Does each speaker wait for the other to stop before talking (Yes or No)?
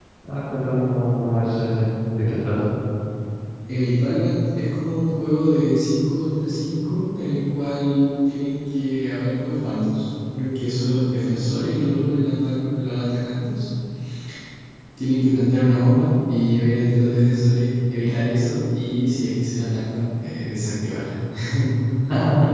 Yes